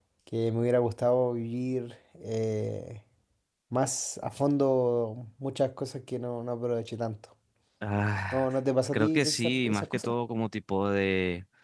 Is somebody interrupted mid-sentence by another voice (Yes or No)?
Yes